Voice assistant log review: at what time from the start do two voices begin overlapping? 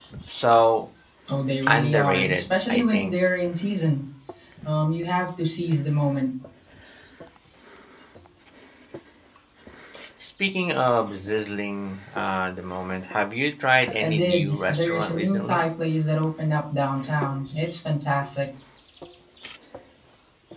1.7 s

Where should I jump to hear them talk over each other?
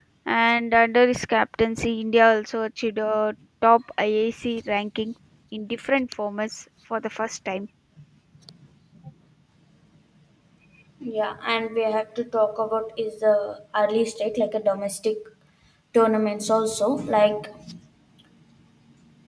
none

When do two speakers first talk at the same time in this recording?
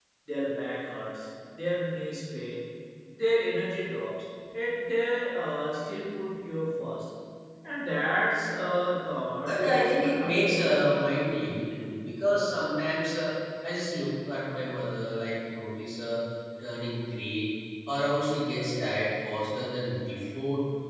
9.4 s

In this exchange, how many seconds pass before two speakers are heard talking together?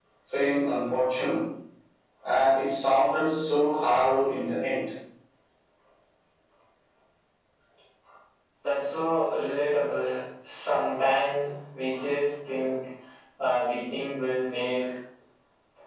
none

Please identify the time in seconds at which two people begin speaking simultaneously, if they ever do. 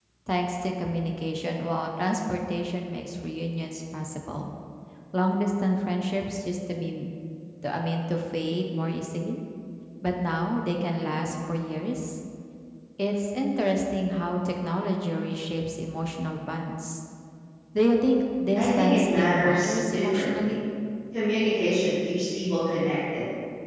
18.6 s

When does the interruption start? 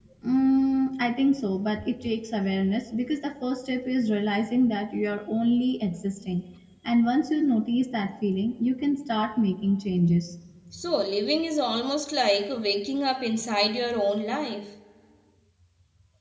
none

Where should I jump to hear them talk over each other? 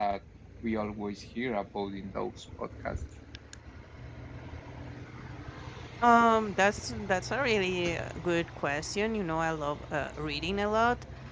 none

